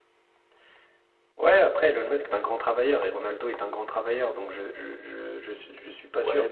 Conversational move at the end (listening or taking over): taking over